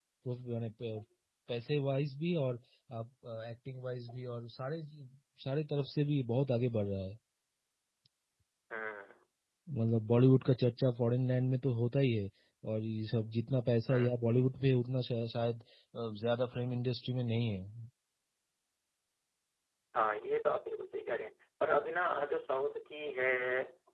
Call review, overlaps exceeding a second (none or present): none